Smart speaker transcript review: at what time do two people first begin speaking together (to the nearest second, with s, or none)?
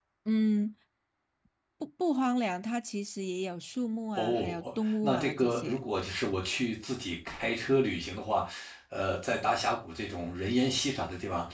4 s